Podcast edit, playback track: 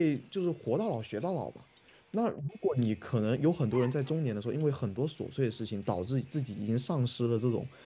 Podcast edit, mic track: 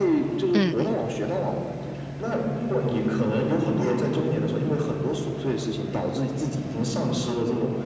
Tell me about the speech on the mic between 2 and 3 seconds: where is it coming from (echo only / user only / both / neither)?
echo only